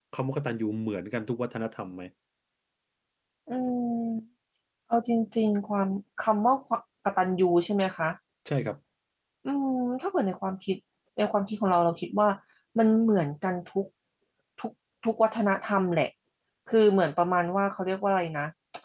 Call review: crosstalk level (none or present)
none